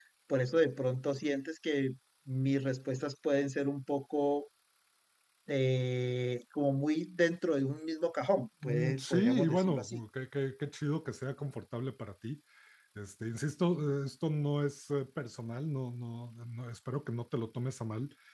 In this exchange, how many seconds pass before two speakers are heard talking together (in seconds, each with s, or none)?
8.6 s